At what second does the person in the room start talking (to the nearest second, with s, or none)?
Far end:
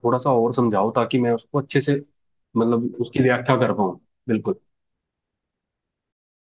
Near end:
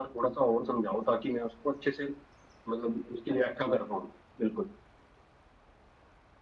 none